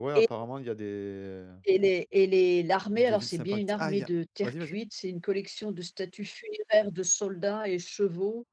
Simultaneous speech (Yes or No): Yes